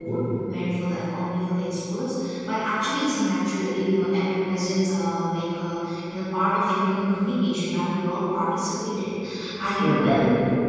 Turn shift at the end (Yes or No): No